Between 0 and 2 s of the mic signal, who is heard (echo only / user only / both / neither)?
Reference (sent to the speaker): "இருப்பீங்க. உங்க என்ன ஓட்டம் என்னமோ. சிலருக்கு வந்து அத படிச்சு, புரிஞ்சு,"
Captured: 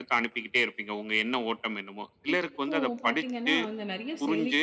echo only